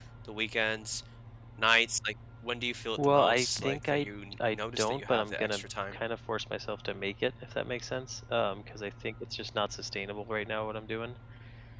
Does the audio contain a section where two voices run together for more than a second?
Yes, from 3.0 s

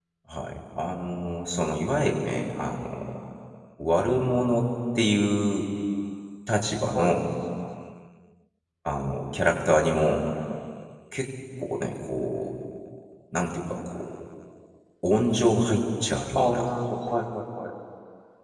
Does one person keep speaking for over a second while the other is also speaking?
No

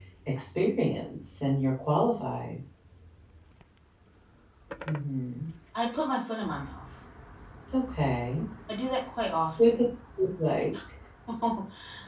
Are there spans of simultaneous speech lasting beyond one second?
No

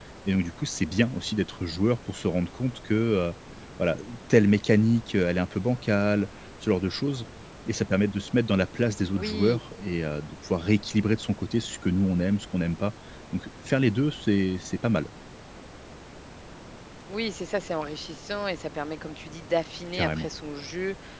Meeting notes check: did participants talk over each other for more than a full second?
No

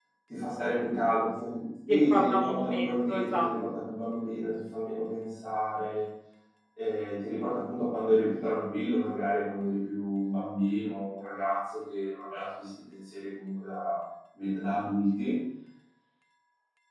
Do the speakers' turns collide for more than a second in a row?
Yes, from 1.9 s

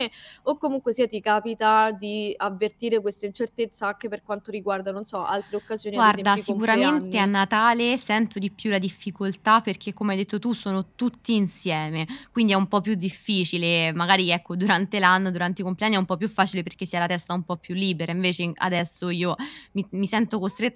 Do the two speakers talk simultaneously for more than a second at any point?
Yes, from 6.0 s

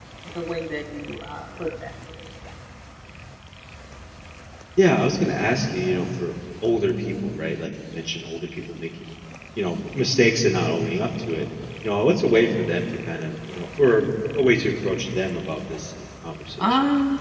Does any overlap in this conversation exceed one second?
No

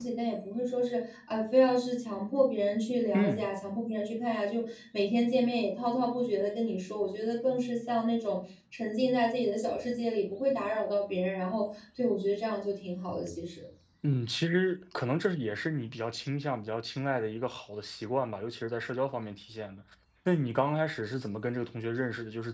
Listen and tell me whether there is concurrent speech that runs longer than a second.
No

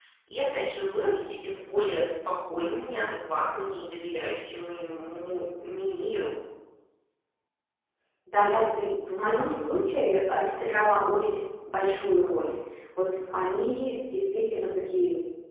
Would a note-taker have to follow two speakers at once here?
No

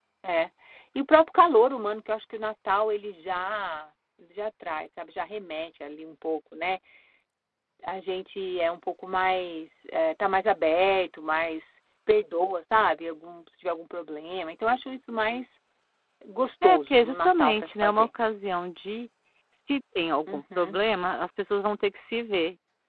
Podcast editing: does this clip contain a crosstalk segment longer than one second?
Yes, from 16.6 s

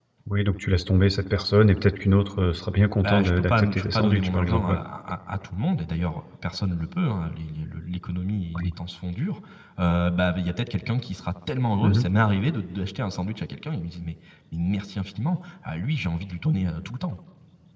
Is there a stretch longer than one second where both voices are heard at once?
Yes, from 3.0 s

